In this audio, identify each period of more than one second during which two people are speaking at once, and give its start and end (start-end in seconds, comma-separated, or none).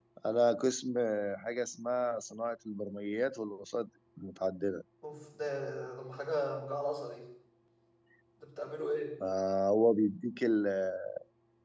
none